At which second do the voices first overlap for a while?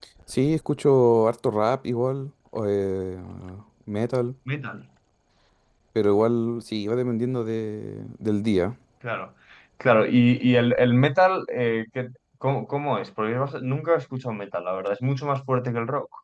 none

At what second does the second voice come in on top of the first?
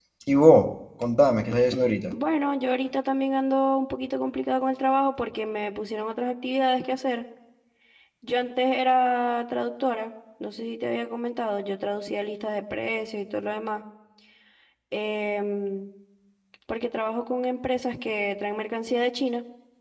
none

